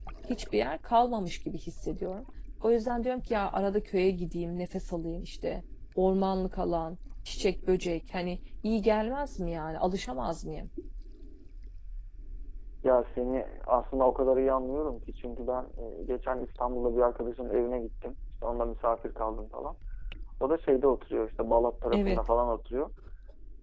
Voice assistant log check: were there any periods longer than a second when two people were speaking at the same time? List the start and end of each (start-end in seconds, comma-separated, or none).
none